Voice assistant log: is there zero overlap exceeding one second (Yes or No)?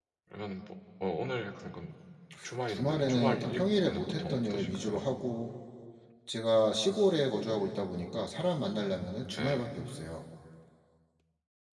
No